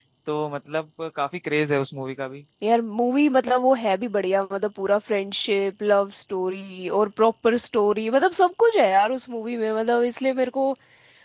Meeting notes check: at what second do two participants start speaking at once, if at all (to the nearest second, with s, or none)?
none